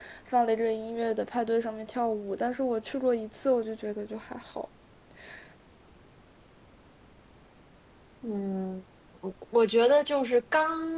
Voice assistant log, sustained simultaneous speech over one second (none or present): none